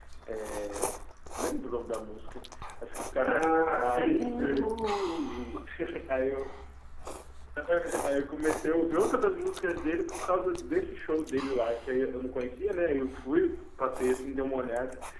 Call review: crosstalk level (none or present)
present